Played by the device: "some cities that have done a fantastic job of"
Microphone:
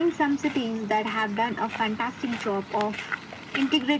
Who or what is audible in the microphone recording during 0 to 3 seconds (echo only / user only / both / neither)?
echo only